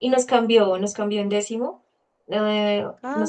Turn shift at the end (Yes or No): No